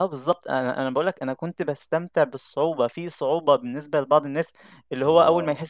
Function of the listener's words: listening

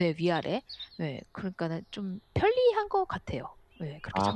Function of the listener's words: taking over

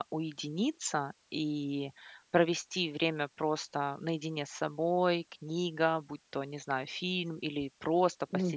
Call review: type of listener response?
listening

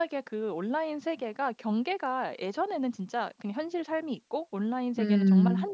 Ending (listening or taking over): listening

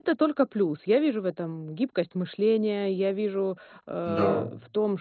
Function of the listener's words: listening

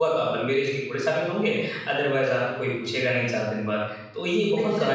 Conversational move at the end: taking over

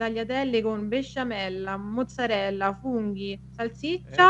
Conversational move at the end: listening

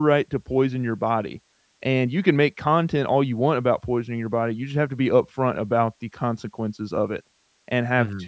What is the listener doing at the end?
listening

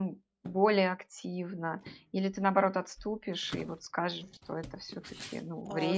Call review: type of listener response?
taking over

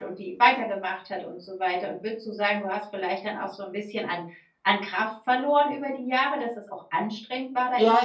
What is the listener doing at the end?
taking over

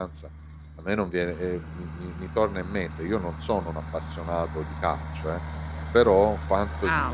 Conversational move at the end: listening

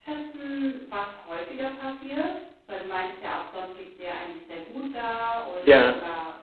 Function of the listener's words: listening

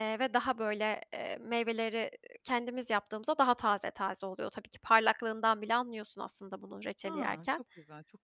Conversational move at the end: taking over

